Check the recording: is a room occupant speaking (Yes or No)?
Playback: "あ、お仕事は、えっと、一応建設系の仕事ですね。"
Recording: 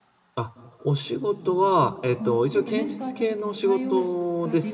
Yes